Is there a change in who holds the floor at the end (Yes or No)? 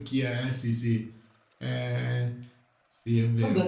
Yes